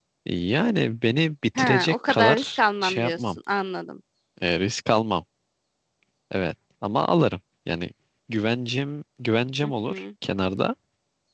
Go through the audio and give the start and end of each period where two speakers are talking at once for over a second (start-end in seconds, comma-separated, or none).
1.6-3.4